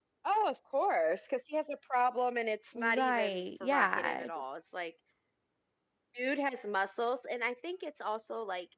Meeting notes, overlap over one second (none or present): present